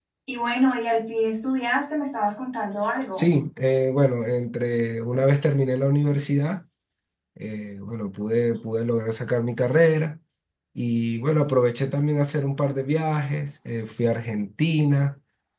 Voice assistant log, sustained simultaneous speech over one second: none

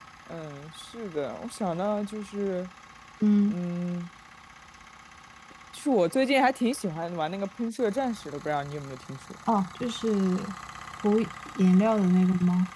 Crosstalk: none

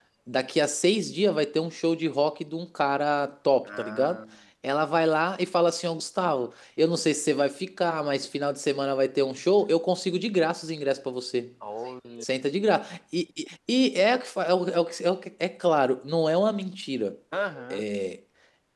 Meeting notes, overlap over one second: none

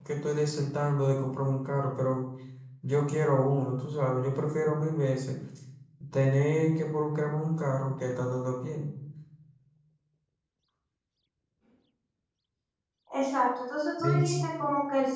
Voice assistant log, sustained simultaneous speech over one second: none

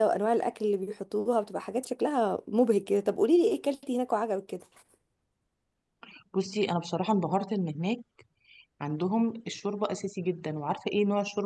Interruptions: none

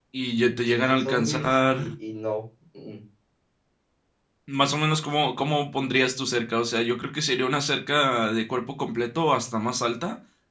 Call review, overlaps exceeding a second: present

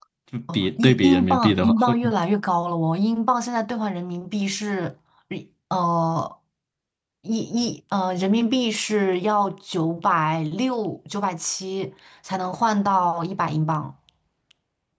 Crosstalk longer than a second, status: present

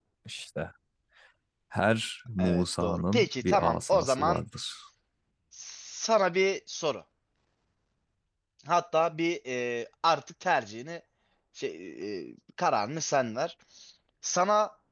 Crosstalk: present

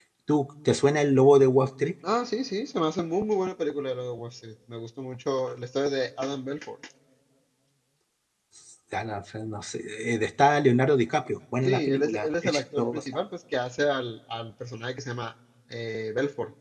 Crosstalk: present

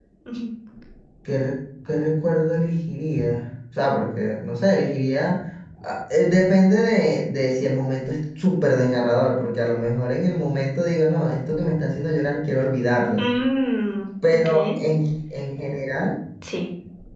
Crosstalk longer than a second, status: none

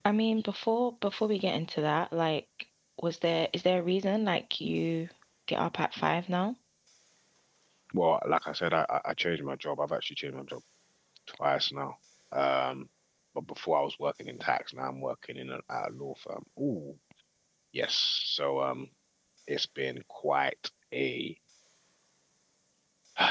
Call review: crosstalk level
none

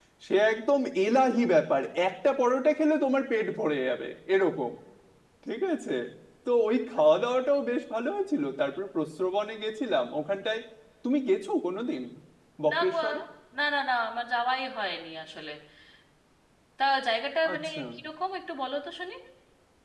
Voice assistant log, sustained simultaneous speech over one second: none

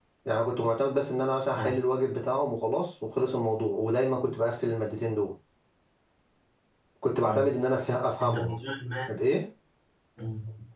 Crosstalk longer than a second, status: none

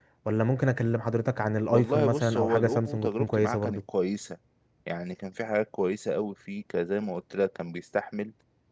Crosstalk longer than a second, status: present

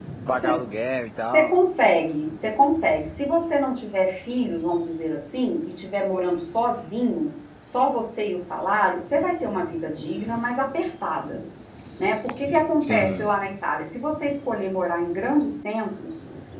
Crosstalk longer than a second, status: none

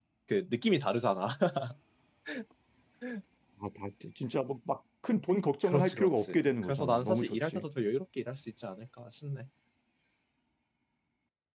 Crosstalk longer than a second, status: present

